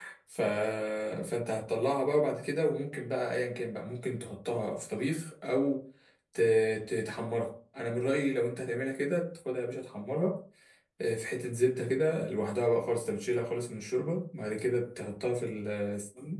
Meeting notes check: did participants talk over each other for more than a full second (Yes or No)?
No